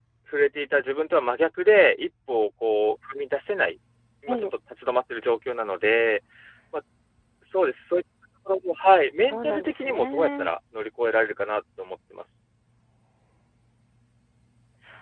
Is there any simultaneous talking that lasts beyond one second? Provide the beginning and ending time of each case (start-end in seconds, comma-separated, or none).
9.2-10.5